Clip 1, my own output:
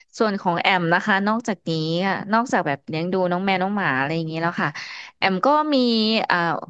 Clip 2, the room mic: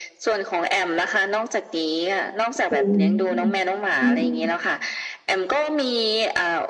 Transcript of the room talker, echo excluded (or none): โอ้โอืมอืม